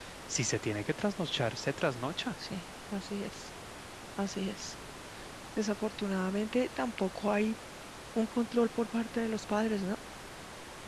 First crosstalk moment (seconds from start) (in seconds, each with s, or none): none